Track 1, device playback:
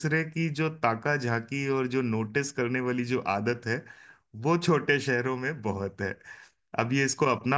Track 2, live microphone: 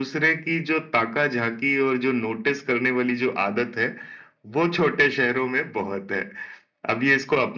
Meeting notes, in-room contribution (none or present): none